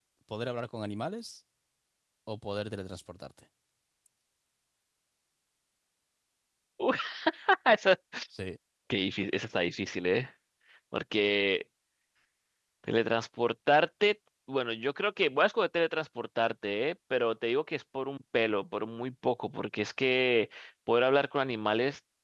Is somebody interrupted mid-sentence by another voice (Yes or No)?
No